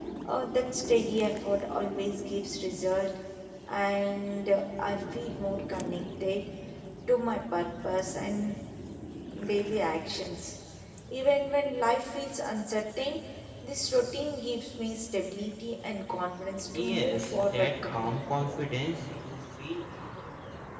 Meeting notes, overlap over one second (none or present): present